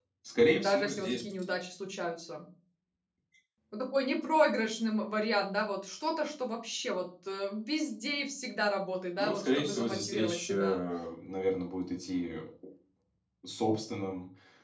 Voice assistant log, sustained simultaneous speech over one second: present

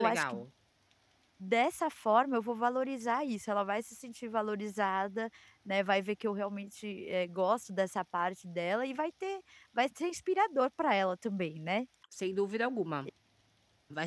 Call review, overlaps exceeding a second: none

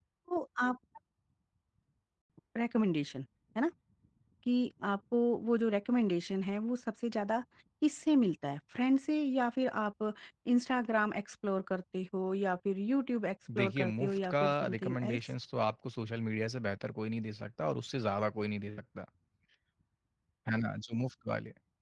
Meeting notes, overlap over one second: present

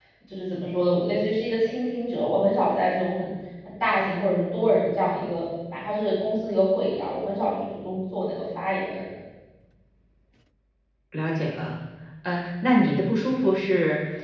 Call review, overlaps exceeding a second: none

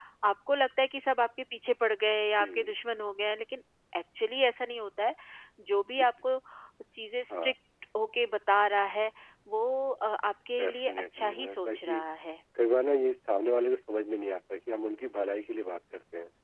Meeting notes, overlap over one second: present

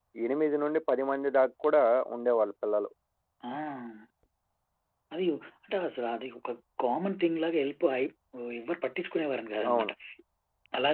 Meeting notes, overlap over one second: none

